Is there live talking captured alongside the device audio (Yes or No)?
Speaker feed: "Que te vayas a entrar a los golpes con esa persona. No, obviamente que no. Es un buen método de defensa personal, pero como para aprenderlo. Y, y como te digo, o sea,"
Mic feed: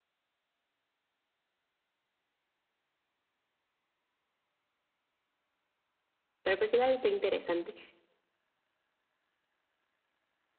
Yes